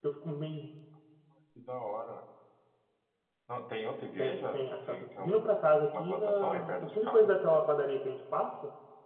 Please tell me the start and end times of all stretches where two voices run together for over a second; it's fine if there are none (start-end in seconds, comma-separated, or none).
4.2-5.4, 5.9-7.4